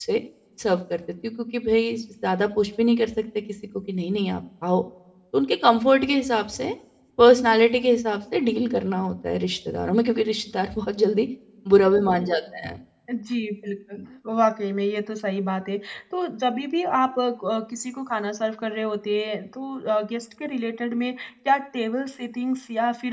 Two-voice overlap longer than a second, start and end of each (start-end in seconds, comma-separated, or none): none